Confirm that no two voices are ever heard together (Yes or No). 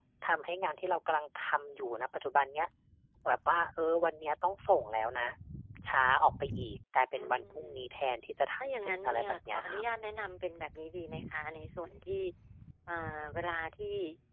No